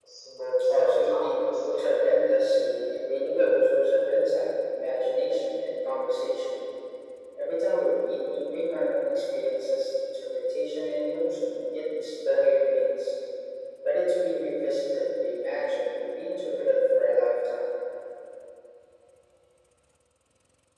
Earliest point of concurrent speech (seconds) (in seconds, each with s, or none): 0.7 s